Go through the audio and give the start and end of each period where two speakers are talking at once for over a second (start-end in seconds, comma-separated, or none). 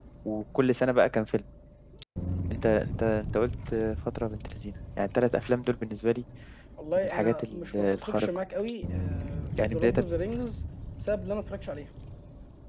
7.0-8.3